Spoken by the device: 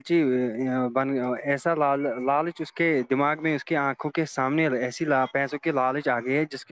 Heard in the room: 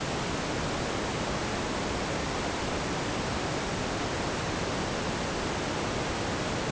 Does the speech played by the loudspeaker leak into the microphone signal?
No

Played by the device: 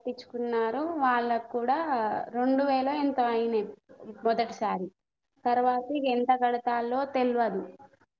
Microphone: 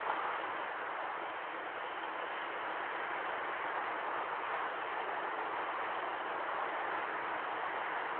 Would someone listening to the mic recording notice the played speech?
No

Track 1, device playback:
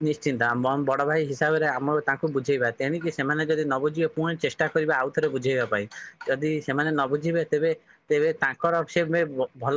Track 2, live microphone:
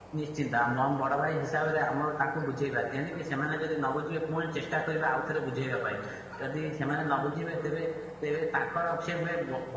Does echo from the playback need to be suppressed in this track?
Yes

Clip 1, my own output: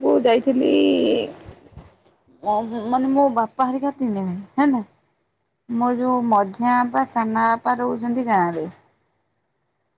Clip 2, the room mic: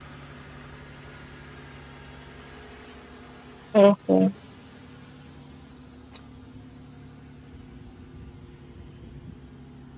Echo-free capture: Yes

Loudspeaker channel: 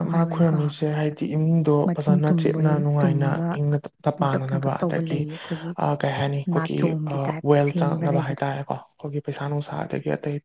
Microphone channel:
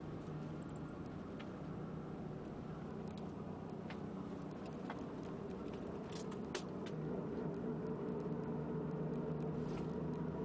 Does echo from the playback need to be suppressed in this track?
No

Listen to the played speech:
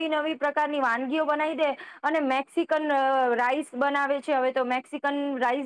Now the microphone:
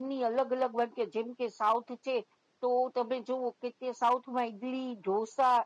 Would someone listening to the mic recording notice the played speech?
No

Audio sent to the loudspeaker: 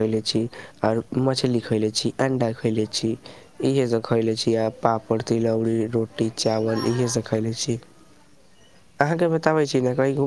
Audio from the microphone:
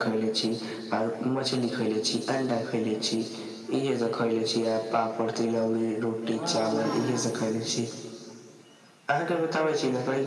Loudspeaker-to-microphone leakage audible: Yes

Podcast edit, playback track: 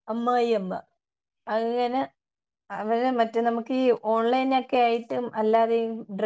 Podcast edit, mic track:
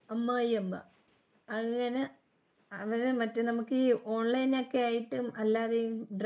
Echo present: Yes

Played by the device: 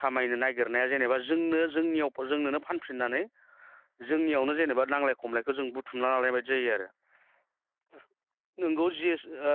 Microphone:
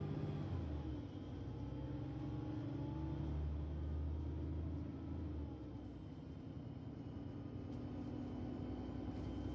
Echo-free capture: Yes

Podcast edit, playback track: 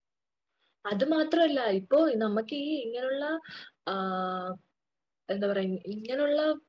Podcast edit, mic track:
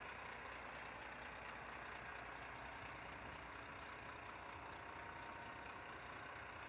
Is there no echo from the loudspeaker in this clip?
Yes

